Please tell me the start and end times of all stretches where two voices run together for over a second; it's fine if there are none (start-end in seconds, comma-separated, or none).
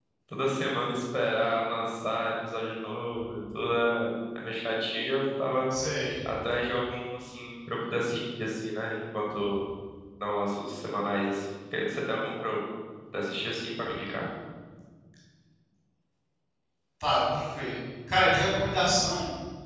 none